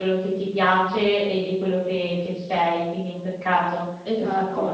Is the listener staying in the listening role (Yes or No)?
No